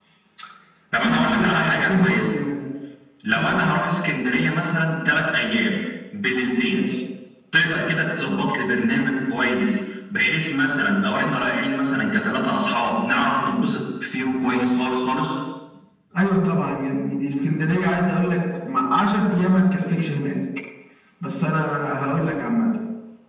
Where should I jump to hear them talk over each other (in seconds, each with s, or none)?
1.0 s